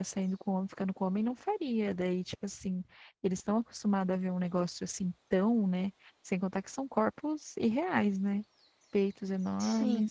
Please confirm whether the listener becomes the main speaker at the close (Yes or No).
No